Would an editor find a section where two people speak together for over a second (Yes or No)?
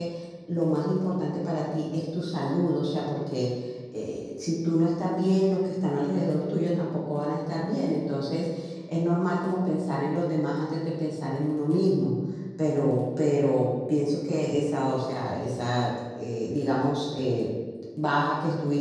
No